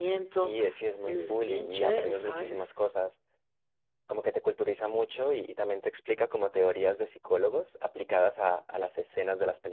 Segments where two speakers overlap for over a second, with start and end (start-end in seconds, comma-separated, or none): 1.0-2.6